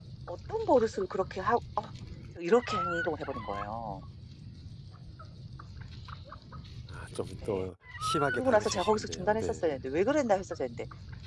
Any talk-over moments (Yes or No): Yes